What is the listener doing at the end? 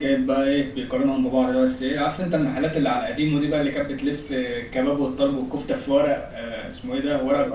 taking over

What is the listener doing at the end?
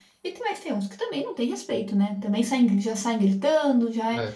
listening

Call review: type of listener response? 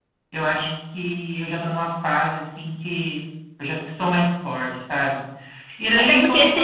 taking over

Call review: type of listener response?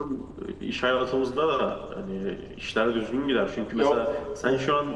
listening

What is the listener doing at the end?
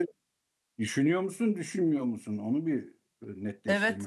taking over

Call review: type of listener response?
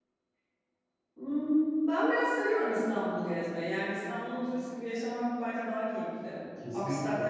listening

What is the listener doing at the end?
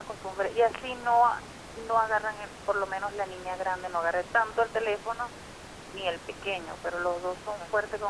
listening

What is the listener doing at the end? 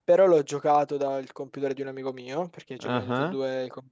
listening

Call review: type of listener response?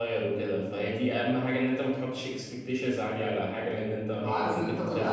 taking over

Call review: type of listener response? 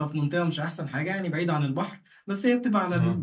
listening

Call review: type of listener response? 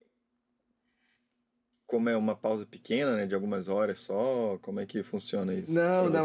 taking over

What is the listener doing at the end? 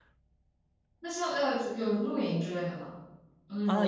taking over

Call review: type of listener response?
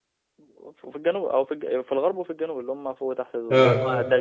listening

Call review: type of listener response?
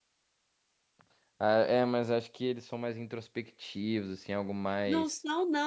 taking over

